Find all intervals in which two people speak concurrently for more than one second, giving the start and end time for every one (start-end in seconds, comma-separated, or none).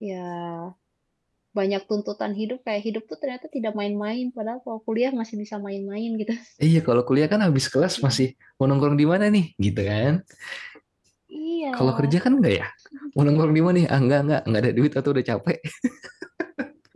none